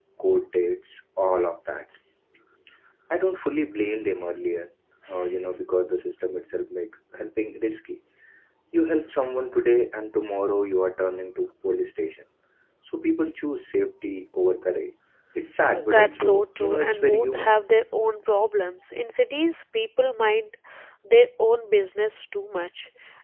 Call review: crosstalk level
present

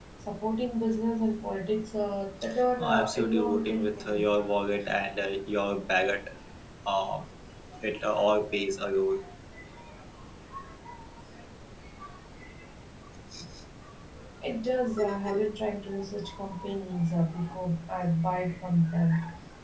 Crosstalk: present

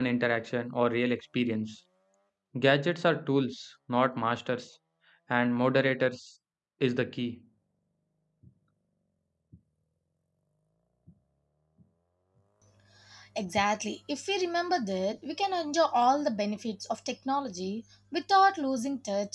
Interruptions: none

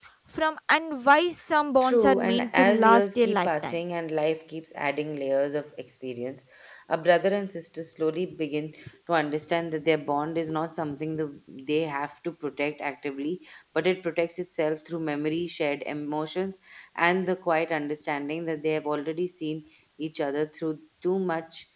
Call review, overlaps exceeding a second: present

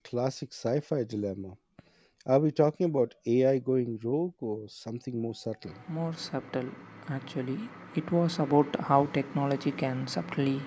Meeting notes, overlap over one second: none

